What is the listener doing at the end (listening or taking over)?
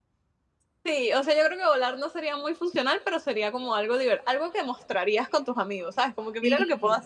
taking over